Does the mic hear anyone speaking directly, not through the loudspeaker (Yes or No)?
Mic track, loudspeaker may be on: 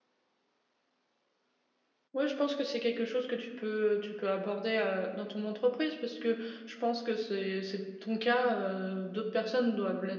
Yes